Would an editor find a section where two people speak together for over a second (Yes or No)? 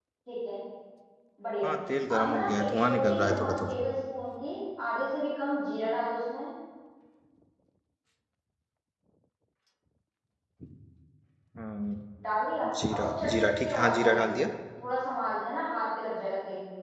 Yes